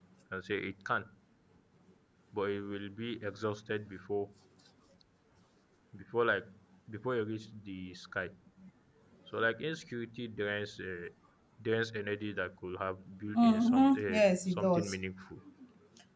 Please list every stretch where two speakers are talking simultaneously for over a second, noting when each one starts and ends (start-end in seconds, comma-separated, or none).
13.3-14.9